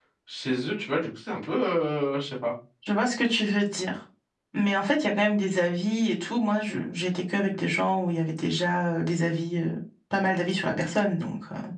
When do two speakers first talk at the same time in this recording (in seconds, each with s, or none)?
none